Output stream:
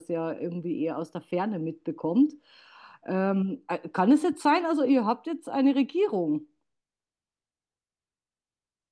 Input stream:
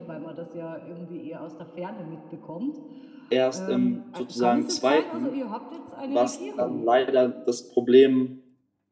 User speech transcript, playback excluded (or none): erst im sozusagen zweiten, was dann leider das Problem